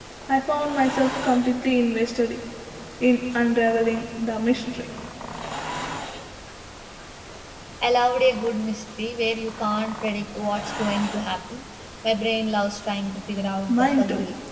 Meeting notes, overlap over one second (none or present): none